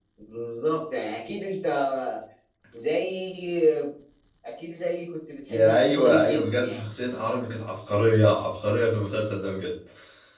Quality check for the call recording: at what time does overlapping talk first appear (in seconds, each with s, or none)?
5.5 s